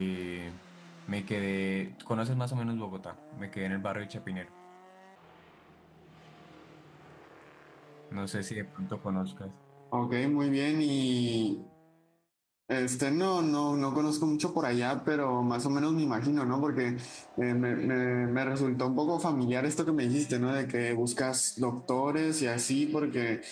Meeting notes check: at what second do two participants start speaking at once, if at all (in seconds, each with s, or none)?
none